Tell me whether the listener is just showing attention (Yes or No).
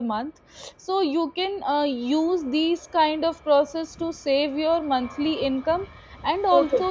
Yes